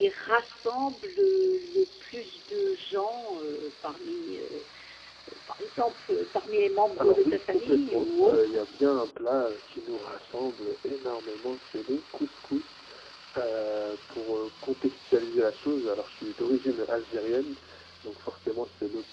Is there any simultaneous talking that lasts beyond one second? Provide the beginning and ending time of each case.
7.0-8.6

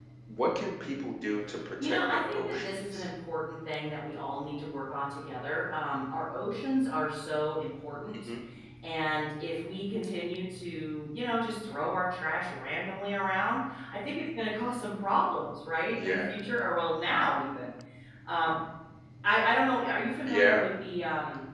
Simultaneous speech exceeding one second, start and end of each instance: 1.8-3.1

